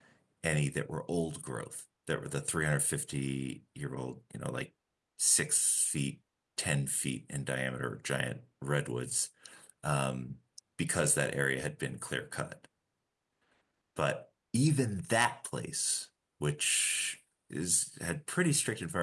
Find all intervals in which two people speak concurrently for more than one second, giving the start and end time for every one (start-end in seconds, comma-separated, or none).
none